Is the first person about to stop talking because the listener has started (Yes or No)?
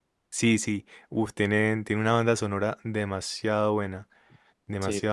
Yes